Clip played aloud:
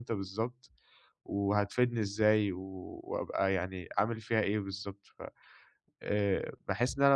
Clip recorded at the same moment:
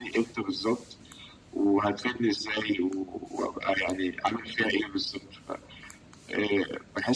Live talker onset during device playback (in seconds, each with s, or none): none